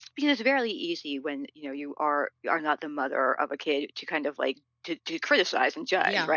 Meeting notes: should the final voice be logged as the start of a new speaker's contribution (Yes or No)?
Yes